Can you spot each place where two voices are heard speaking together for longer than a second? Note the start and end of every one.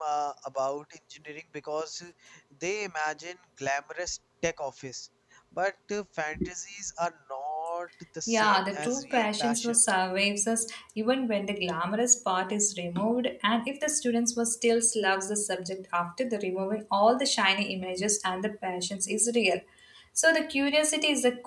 8.3-9.8

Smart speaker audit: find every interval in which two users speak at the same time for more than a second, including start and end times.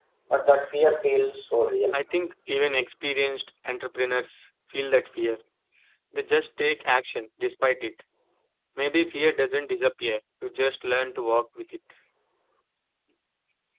none

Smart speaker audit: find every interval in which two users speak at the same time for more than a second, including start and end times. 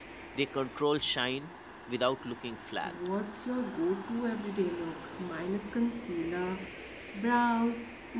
none

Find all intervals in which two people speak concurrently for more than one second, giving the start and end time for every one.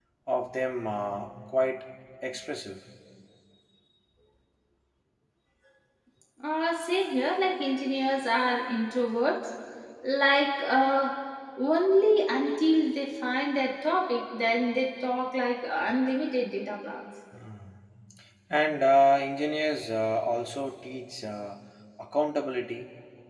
none

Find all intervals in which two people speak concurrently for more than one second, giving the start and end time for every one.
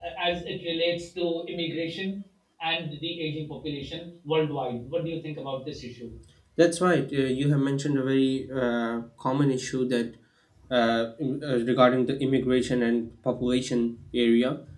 none

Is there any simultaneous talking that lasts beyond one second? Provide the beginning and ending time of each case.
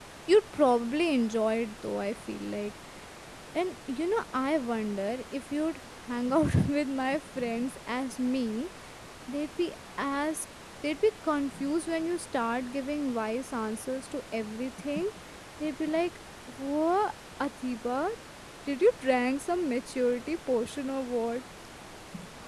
none

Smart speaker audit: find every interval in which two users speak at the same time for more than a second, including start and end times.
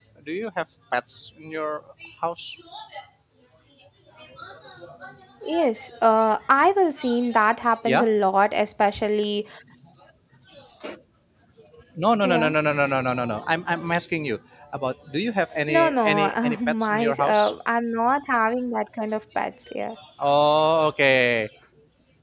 15.7-17.4

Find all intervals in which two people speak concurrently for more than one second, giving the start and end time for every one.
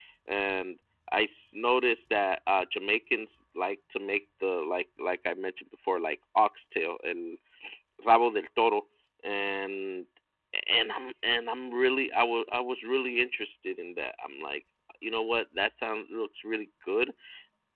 none

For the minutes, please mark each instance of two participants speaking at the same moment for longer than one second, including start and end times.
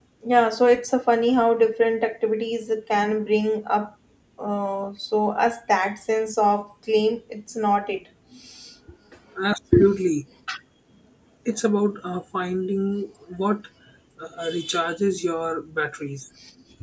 none

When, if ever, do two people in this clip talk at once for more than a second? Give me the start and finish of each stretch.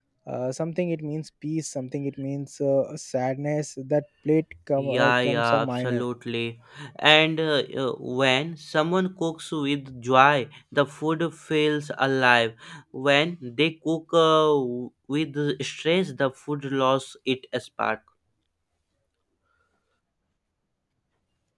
4.8-6.0

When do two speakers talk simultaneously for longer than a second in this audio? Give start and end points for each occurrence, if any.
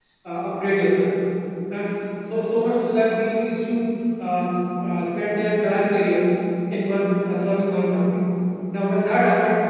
none

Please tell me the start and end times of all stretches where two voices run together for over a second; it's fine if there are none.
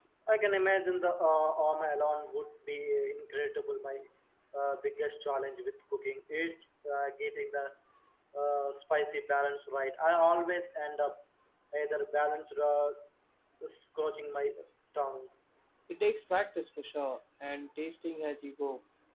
none

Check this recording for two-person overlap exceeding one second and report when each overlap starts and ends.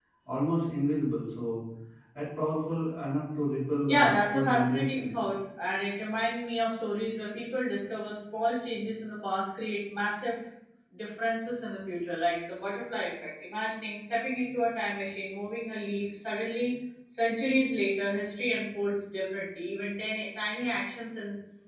3.9-5.2

